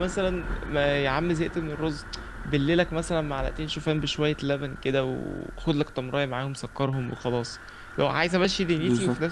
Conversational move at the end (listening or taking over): listening